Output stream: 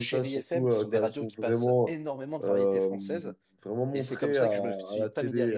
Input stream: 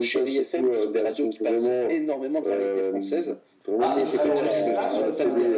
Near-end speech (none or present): present